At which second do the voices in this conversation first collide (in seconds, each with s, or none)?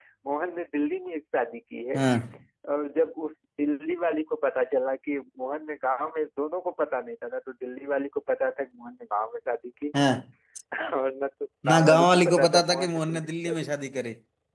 11.7 s